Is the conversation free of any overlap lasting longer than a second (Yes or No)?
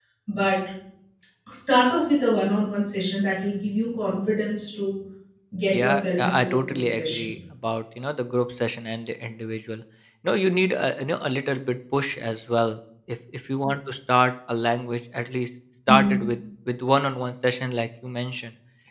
No